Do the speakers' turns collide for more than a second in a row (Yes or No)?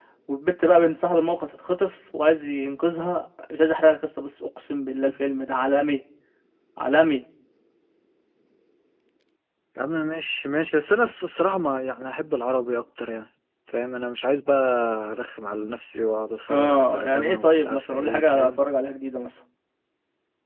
Yes